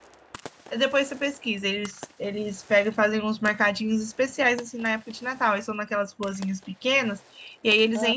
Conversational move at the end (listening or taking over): listening